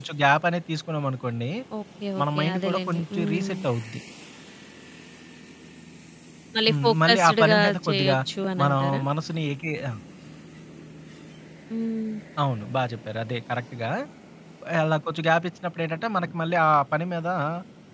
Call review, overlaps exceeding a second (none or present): present